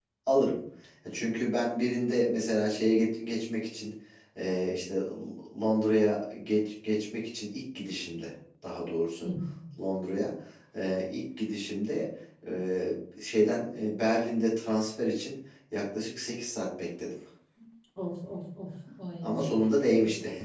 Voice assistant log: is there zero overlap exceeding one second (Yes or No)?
Yes